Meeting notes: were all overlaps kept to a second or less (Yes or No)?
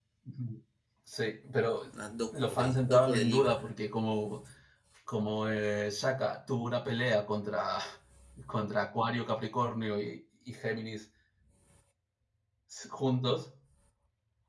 No